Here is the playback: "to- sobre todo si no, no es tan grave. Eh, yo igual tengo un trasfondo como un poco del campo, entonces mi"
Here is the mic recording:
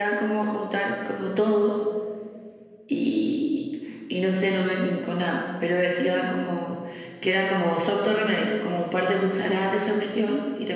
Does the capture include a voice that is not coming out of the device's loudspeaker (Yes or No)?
Yes